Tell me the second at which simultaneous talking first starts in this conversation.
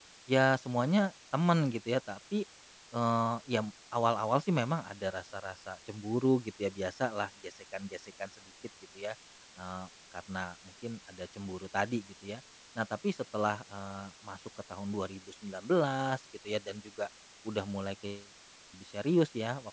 none

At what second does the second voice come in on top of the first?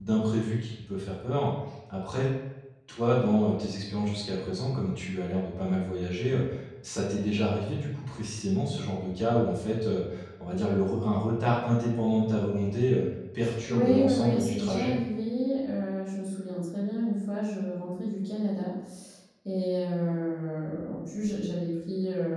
13.7 s

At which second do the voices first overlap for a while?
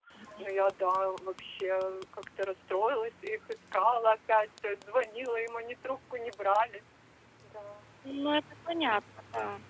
none

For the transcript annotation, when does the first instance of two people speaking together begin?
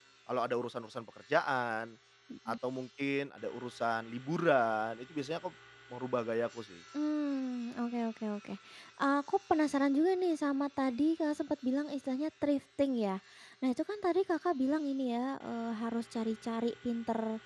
none

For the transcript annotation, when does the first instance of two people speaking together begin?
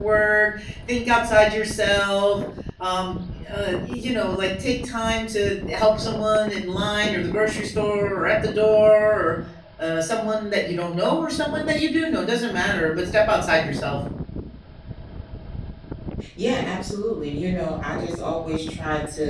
none

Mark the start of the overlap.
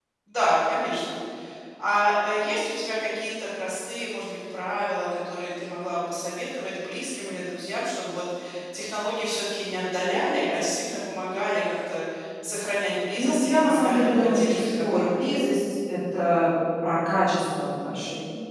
13.2 s

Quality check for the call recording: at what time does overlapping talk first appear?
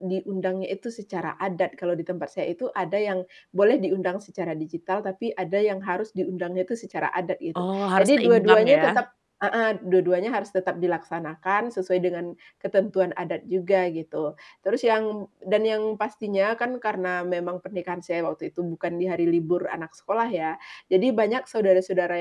7.5 s

